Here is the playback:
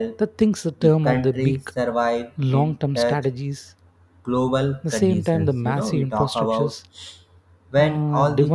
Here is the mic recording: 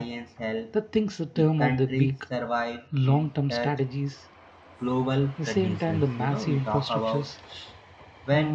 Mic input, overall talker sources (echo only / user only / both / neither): echo only